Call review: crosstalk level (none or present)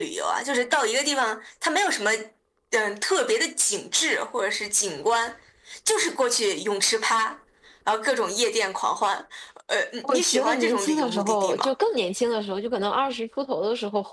present